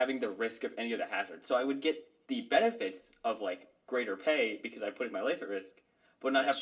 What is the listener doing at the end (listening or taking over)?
listening